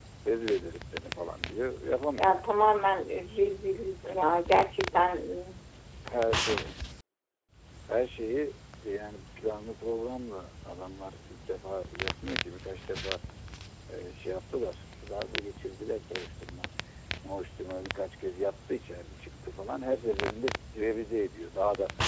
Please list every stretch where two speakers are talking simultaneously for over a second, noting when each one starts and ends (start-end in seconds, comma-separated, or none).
none